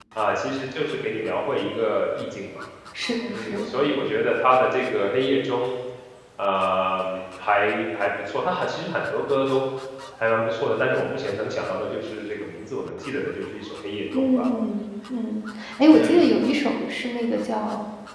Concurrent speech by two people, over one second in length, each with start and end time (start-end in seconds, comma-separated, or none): none